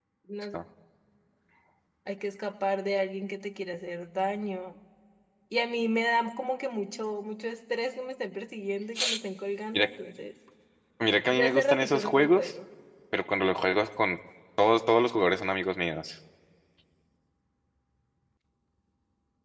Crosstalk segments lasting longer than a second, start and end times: 11.3-12.5

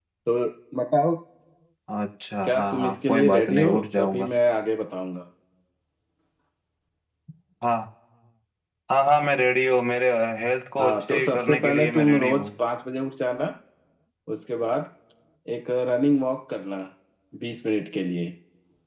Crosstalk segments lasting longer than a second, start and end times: 2.4-4.3, 10.8-12.5

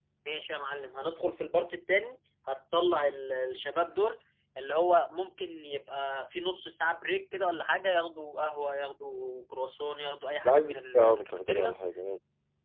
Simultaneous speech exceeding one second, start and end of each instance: 10.4-11.7

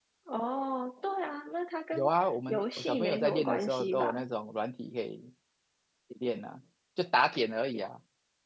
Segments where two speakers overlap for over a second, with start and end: 2.5-4.2

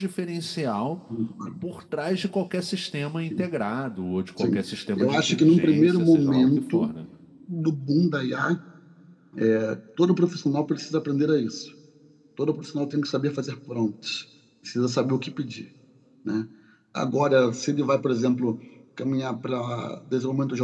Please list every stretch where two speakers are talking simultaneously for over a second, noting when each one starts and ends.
5.0-6.8

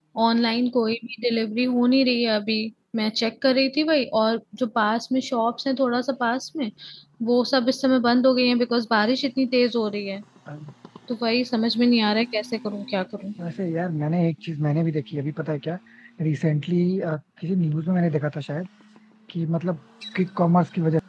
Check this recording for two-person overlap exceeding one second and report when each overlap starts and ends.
none

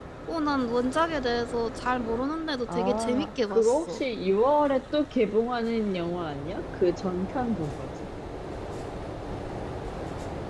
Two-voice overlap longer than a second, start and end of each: 2.7-4.0

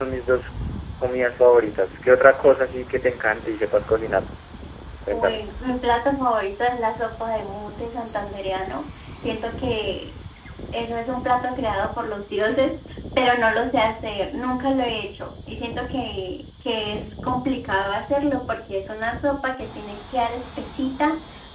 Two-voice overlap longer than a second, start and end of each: none

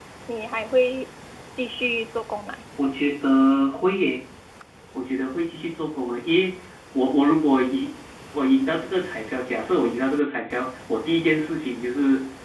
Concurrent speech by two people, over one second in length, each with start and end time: none

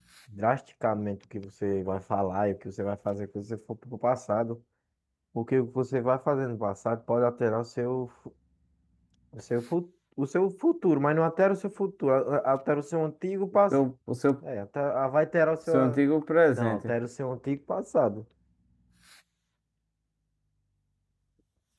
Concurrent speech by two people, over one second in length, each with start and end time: none

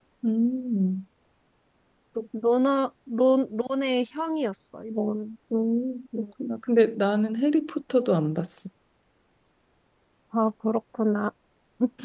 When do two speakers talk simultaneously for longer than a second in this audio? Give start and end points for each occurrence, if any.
none

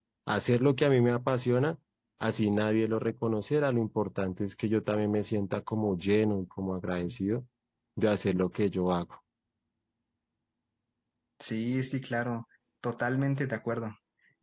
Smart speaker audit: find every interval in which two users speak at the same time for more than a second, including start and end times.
none

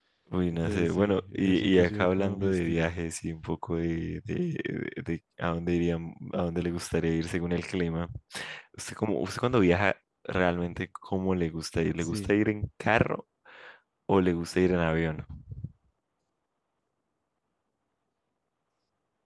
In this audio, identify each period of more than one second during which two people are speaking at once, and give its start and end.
0.5-2.9

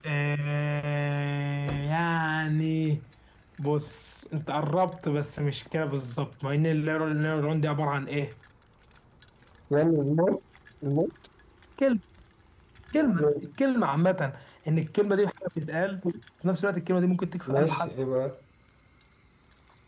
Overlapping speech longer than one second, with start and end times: none

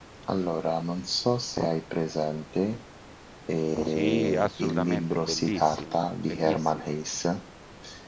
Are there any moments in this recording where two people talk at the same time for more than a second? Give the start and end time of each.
3.9-6.9

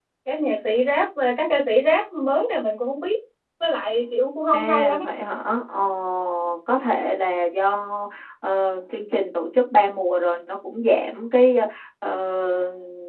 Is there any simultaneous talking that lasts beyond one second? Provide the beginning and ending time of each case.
none

